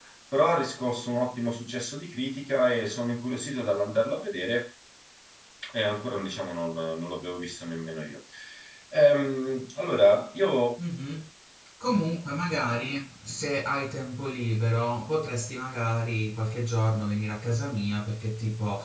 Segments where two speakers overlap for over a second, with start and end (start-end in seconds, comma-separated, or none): none